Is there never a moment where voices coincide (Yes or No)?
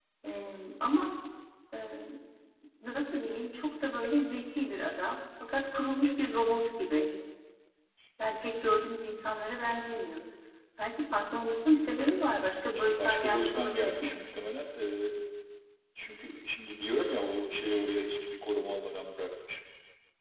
No